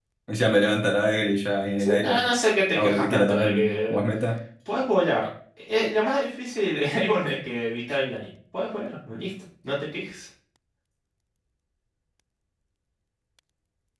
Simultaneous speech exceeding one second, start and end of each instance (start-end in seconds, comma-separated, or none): 2.7-4.0